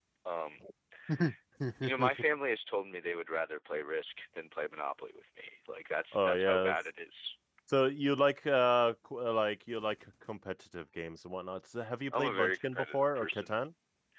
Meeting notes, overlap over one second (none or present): present